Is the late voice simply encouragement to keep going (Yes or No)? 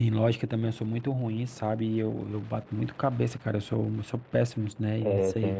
No